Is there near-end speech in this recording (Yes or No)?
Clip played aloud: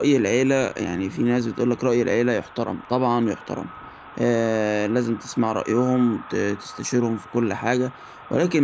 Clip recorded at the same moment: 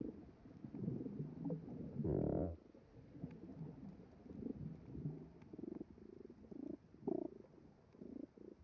No